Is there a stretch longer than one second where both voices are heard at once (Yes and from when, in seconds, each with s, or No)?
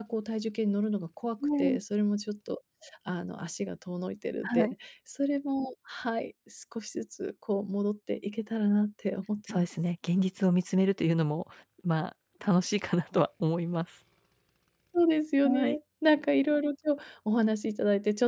No